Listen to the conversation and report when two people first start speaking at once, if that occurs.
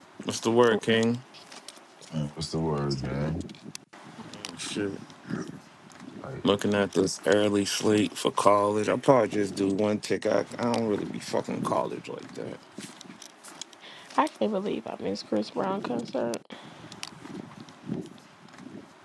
none

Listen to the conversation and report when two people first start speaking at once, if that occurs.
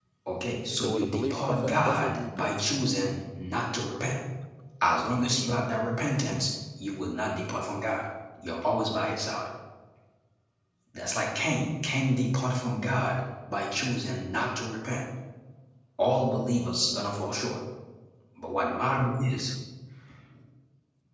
1 s

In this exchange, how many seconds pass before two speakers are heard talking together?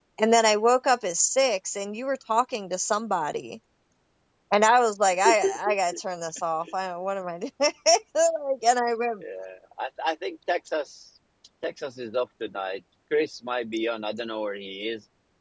none

